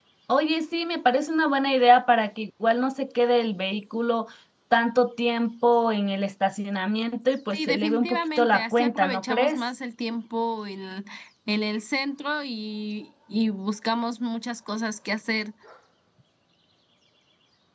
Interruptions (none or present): present